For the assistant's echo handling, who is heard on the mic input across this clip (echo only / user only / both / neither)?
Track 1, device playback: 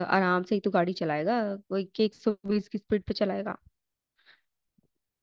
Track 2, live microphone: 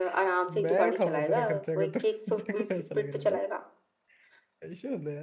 both